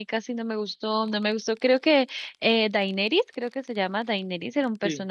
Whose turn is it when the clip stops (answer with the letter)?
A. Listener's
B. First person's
B